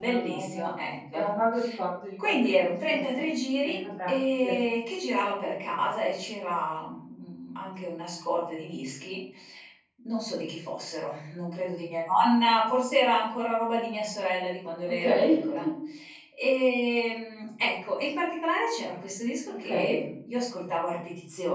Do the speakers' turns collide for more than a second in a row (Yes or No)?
Yes